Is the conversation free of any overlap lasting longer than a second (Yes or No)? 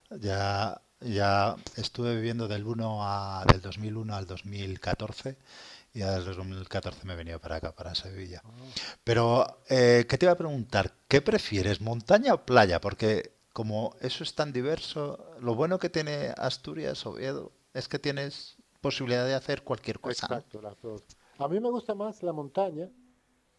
Yes